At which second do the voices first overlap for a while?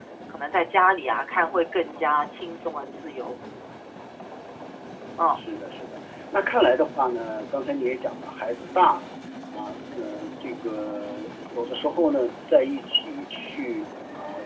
none

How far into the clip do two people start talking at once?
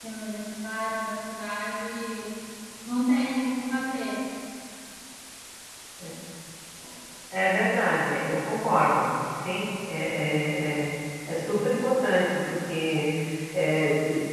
none

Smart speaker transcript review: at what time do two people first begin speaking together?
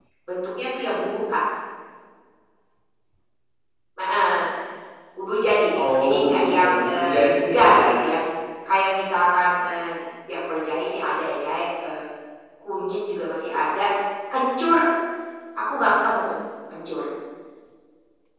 6 s

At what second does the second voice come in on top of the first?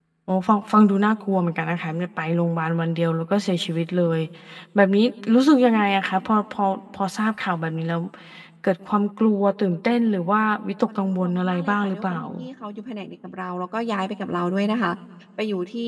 11 s

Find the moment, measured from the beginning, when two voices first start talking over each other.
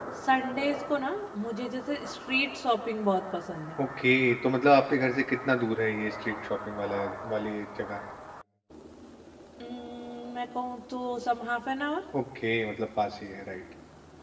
none

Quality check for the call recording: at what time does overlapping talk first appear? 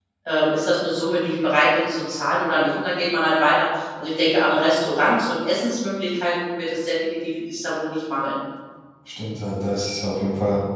none

